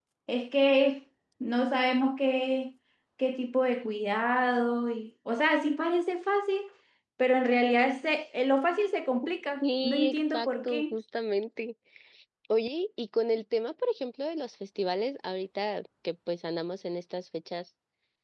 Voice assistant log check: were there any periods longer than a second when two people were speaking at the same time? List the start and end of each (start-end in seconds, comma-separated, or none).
9.6-10.9